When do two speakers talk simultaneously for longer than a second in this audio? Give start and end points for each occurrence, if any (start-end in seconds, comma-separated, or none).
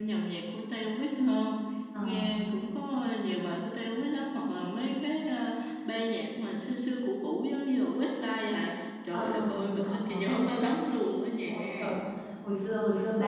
9.1-10.5